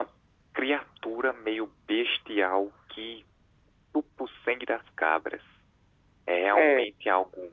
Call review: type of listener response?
listening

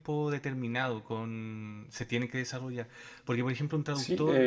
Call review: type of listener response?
taking over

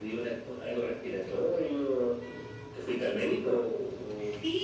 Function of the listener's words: taking over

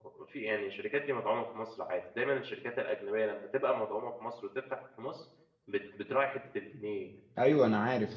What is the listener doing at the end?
taking over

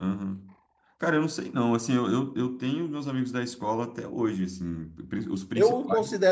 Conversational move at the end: taking over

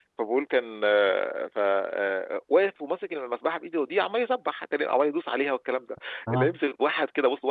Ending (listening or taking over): listening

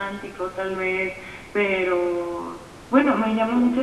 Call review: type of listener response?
listening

